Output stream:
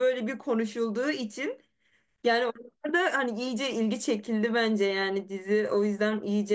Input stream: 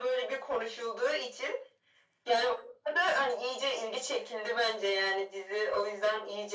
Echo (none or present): present